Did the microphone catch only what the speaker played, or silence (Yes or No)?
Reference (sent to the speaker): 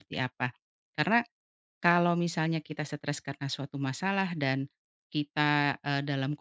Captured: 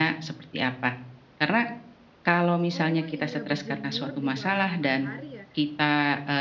No